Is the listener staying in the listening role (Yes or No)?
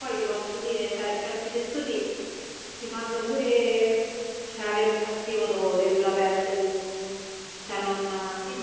No